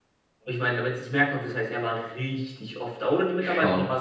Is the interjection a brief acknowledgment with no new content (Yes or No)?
Yes